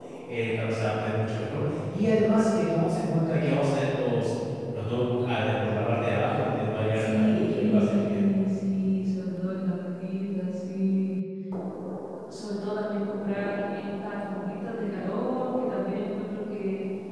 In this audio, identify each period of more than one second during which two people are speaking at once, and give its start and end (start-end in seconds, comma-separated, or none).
6.9-8.2